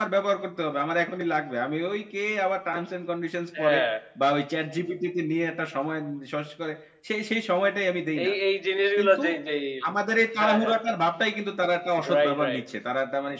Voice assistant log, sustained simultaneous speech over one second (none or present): none